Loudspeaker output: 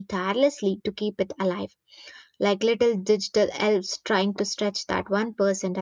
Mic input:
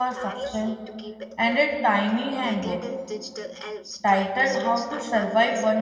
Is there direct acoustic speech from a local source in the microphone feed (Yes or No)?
Yes